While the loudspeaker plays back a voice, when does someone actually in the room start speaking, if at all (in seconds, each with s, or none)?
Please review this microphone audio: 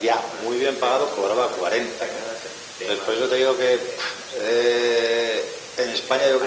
none